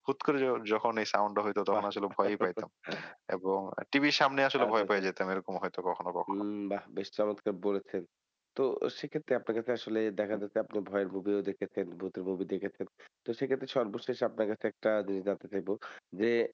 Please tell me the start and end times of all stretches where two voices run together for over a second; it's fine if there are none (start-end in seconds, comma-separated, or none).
none